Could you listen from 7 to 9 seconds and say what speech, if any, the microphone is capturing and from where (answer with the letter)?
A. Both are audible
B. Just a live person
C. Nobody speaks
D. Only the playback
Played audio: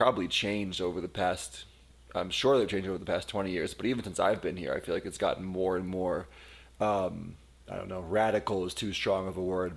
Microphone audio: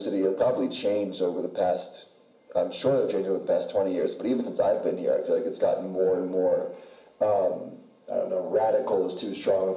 D